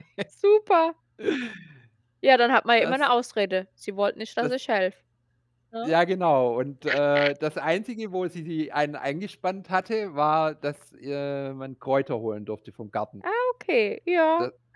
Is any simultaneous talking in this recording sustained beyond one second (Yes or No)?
No